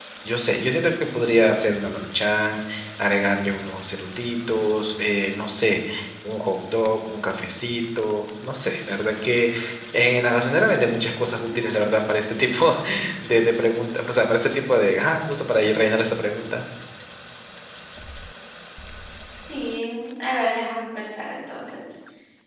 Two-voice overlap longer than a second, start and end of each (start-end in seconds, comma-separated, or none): none